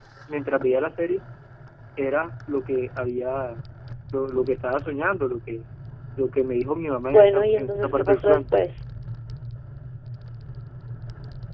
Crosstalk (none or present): present